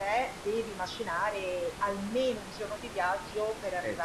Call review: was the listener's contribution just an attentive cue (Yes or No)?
Yes